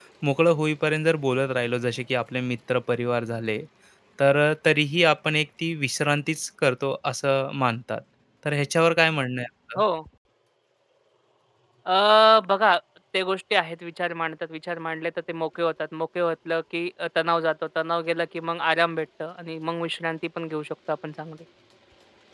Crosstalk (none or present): none